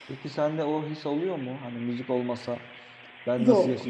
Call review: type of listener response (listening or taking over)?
listening